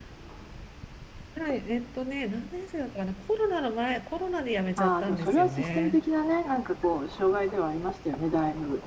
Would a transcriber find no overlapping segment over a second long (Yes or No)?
No